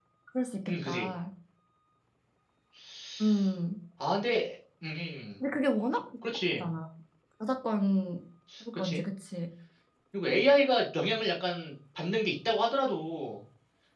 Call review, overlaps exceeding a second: none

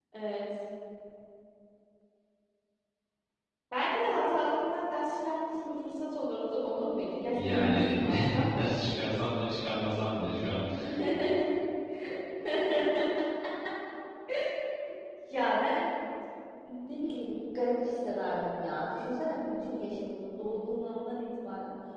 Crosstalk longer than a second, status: present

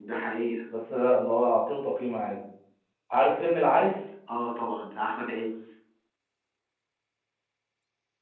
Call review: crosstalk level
none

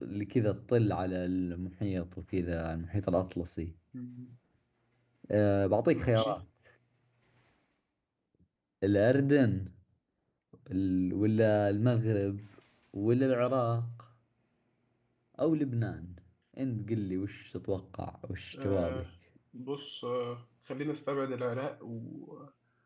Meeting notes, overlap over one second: none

